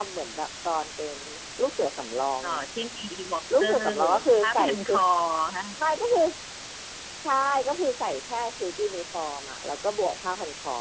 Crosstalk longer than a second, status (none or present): present